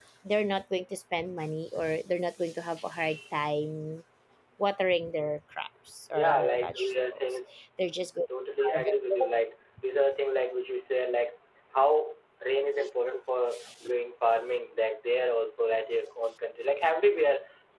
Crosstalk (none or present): present